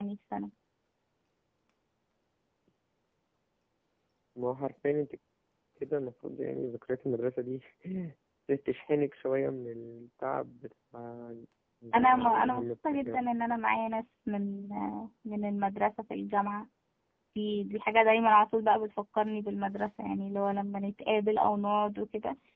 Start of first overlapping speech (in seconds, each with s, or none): 11.9 s